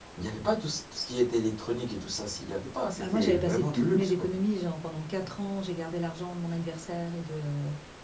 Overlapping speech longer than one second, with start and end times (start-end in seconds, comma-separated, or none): 3.0-4.3